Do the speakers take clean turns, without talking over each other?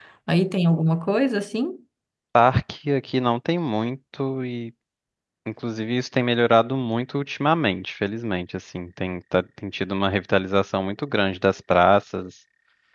Yes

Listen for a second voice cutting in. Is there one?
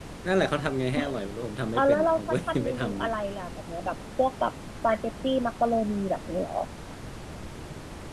Yes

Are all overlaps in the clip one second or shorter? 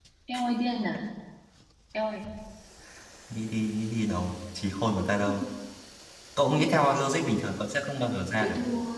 Yes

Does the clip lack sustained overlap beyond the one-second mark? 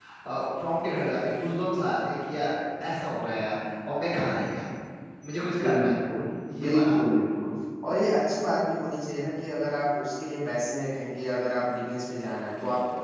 Yes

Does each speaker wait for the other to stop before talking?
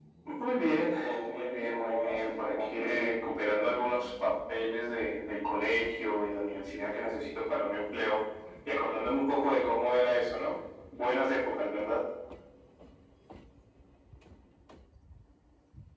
No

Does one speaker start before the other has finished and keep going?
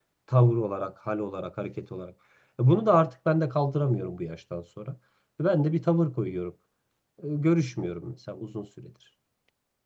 No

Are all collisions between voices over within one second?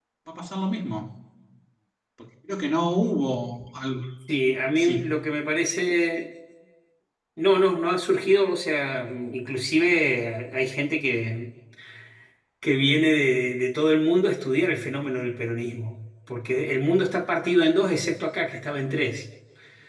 Yes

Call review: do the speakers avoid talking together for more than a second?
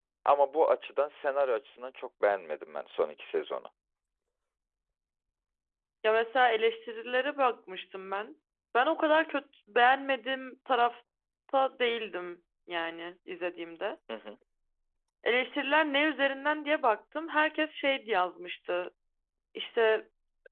Yes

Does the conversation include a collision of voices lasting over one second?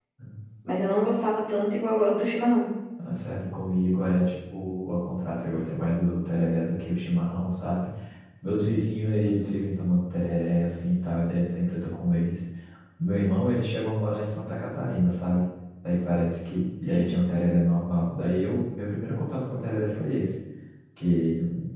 No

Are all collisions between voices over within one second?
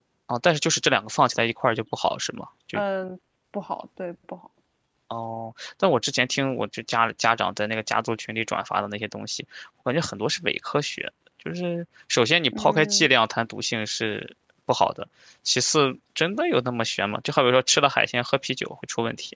Yes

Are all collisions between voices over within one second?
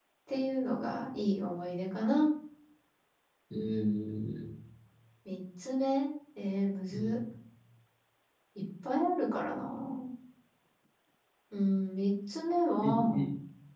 Yes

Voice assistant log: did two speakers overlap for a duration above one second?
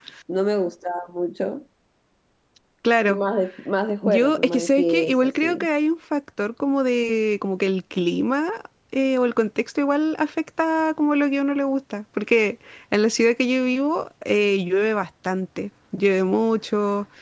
Yes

